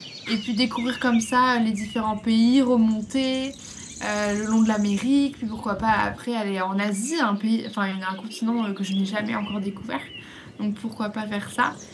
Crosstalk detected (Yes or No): No